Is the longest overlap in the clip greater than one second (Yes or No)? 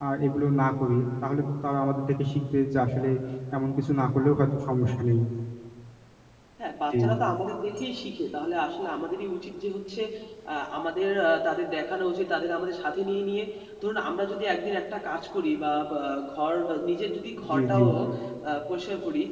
No